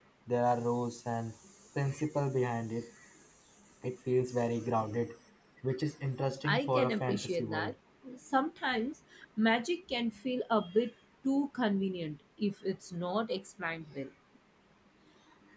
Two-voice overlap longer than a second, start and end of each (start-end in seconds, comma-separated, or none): 6.5-7.7